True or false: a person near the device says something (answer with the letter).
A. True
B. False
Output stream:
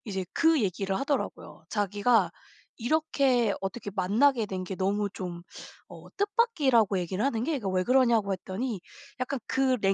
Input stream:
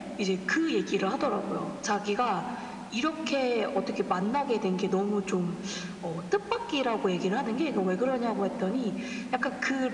B